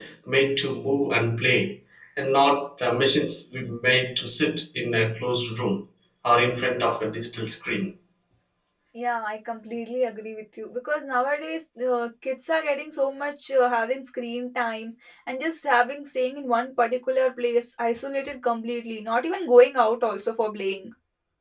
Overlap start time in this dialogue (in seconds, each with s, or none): none